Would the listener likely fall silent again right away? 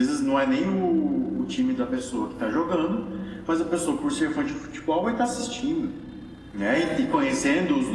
Yes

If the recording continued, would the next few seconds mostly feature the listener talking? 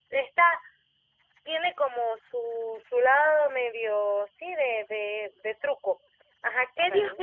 No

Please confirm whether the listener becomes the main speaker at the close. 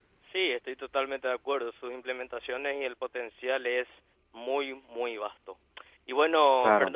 No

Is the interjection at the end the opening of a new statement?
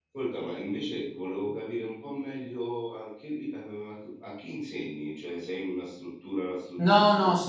Yes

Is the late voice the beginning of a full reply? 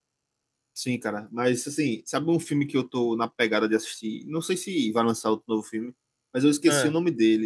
No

